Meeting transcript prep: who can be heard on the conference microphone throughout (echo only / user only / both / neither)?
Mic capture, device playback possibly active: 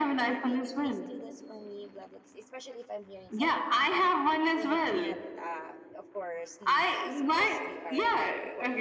both